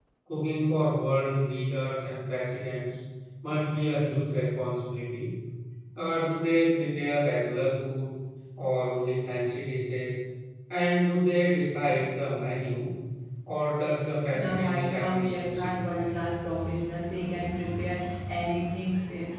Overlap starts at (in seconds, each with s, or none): 14.3 s